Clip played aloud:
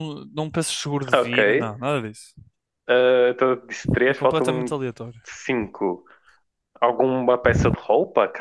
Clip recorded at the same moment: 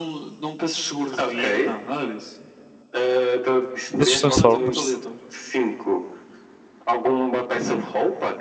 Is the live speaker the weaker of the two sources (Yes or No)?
No